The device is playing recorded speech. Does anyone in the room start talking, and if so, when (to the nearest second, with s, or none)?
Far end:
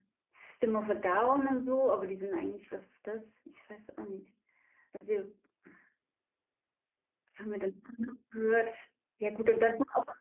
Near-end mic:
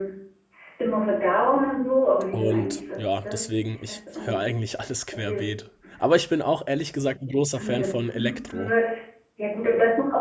2 s